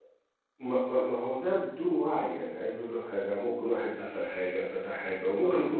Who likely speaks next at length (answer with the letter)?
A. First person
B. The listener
A